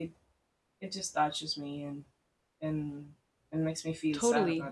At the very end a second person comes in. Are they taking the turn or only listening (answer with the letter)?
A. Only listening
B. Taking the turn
B